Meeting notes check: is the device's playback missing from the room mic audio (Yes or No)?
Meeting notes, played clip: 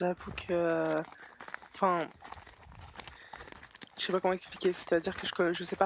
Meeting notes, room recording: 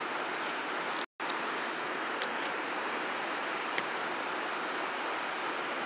Yes